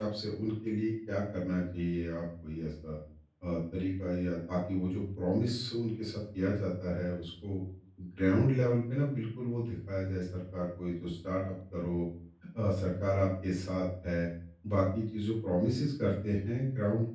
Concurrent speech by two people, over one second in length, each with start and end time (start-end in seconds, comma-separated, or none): none